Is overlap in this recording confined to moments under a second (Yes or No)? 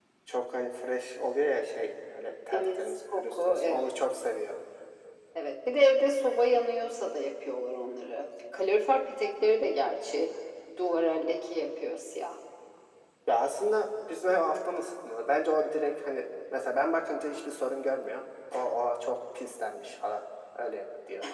No